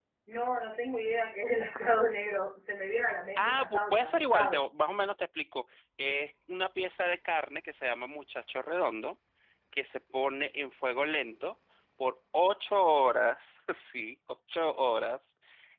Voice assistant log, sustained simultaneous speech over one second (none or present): present